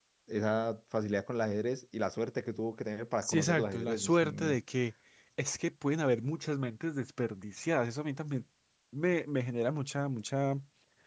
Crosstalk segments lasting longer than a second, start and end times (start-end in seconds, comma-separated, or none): 3.2-4.6